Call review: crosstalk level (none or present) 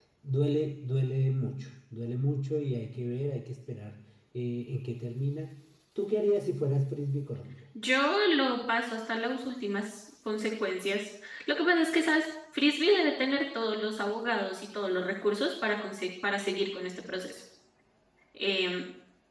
none